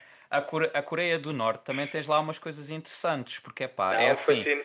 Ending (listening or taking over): taking over